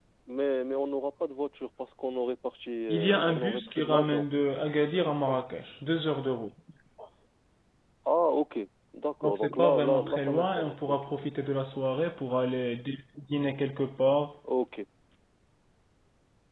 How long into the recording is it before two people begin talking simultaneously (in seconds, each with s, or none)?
2.9 s